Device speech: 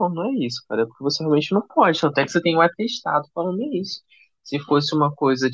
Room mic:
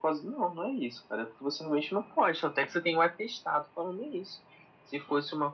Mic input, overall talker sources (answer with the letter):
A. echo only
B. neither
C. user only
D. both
A